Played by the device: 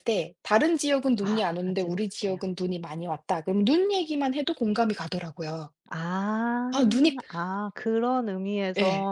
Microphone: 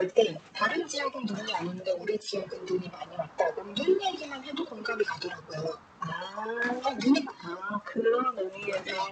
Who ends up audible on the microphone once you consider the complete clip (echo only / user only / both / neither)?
echo only